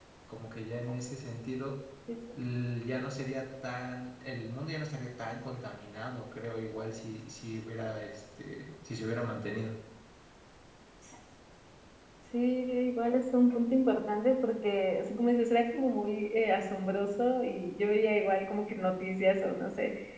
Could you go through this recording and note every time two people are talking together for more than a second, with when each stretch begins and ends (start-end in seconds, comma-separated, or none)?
none